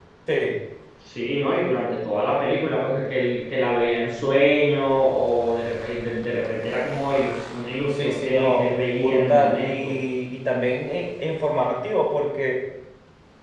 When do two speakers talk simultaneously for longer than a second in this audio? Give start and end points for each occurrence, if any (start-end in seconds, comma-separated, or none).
7.9-10.0